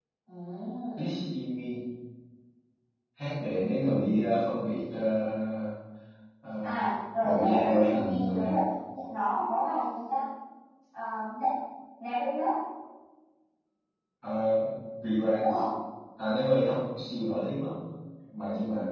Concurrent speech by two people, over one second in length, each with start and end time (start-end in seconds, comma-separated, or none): 7.2-8.6